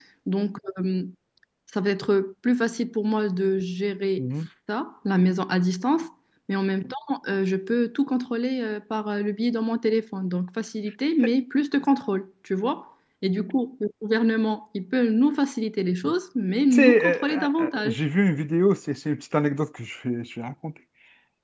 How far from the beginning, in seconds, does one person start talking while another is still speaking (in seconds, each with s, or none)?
16.7 s